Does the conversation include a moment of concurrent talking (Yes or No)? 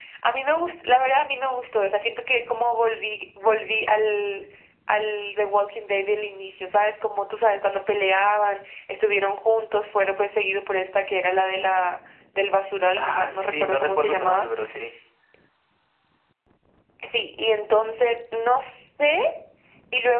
Yes